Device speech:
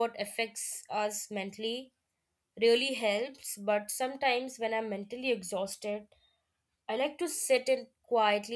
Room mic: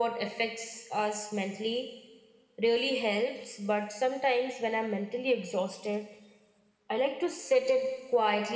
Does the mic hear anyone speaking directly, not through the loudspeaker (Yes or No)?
No